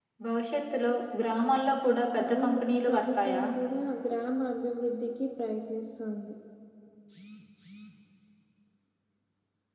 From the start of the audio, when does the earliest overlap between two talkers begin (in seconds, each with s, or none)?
2.1 s